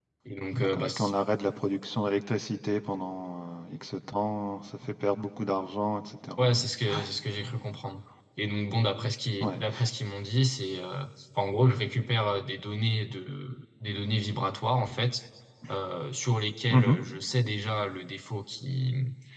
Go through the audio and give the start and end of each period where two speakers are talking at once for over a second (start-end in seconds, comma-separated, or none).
none